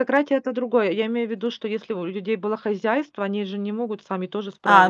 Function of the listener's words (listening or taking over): taking over